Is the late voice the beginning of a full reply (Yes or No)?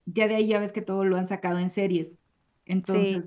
No